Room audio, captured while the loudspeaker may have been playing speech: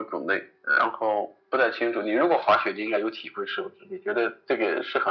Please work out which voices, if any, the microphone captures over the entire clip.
echo only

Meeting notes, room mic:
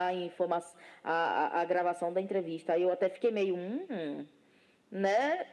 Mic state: echo only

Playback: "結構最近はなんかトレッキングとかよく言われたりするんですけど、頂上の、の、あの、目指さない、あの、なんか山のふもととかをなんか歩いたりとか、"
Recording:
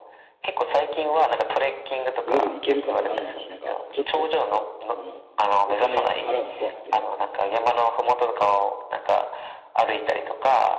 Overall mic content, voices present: both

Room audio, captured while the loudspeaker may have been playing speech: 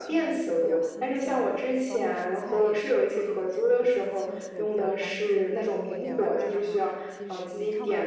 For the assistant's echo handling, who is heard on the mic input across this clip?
both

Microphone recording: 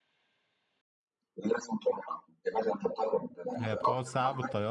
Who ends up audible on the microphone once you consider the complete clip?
both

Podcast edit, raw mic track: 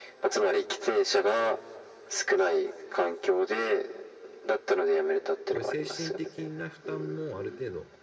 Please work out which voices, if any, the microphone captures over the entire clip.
both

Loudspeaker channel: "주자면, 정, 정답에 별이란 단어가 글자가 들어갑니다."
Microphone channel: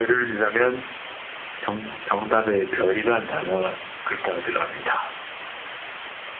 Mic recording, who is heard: echo only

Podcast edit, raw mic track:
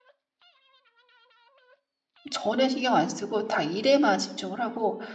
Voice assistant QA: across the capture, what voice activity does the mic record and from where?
user only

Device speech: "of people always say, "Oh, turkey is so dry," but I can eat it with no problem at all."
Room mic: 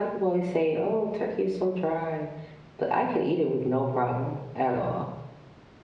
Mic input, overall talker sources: echo only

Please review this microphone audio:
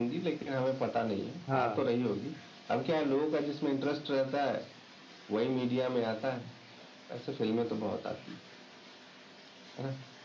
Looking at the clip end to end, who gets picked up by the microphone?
both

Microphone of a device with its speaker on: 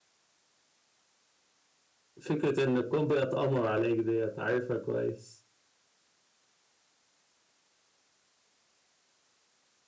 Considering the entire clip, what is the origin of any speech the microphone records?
user only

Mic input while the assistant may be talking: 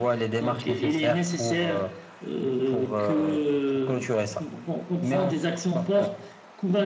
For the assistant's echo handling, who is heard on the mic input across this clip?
echo only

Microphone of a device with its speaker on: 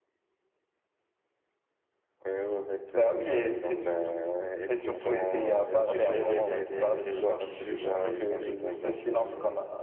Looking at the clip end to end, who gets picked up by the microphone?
both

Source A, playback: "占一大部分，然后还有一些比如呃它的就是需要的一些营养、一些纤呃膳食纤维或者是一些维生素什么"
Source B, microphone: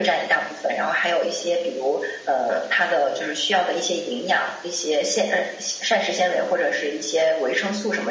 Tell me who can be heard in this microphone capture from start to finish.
echo only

